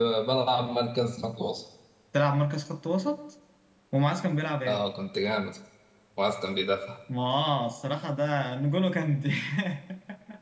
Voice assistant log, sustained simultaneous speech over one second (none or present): none